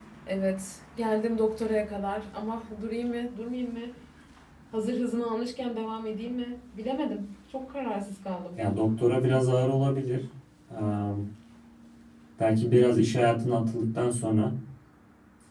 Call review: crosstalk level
none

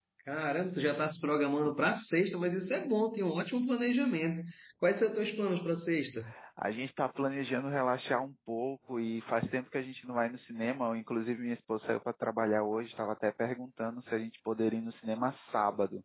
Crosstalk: none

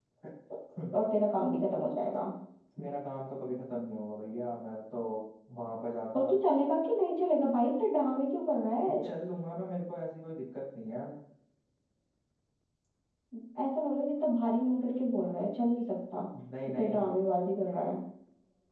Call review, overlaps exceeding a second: none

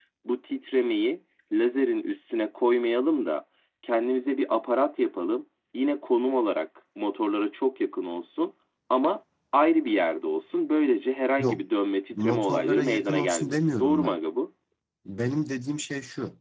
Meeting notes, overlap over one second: present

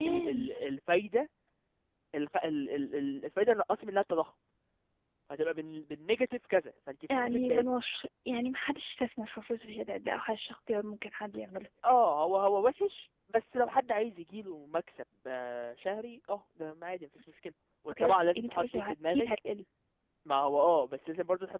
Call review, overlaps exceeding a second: present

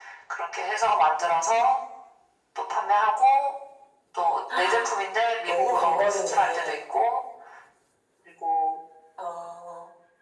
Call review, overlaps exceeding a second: present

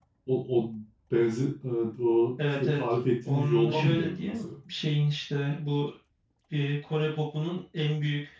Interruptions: present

